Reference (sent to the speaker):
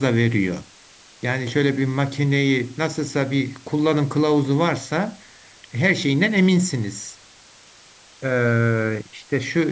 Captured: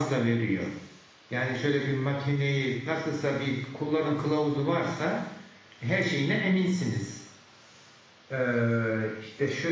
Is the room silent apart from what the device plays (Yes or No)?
Yes